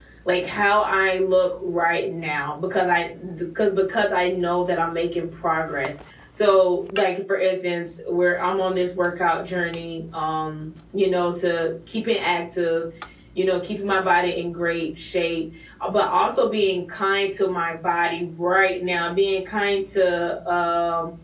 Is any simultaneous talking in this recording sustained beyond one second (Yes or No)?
No